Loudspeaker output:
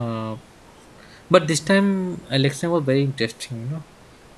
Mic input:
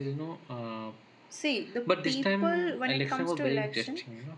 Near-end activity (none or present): present